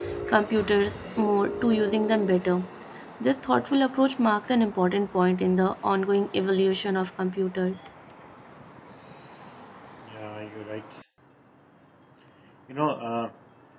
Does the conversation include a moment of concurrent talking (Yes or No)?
No